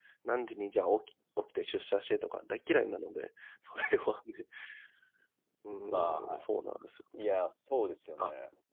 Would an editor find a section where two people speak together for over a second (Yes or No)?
No